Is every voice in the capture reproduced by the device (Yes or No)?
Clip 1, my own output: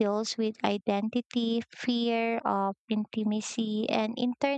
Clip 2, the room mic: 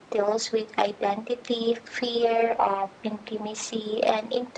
Yes